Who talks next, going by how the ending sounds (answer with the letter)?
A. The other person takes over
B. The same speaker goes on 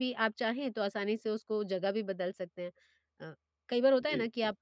B